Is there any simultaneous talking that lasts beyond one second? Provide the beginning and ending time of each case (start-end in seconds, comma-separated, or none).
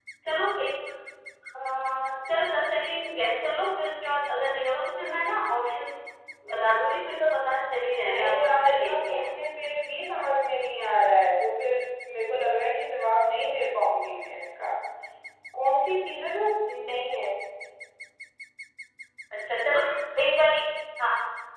7.9-9.3